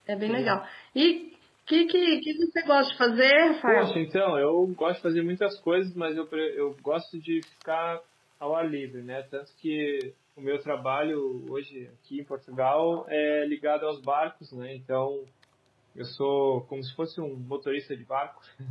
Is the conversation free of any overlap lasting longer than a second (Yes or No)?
Yes